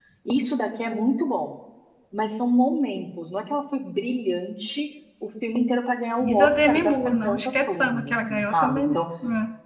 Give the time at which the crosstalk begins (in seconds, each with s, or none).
6.2 s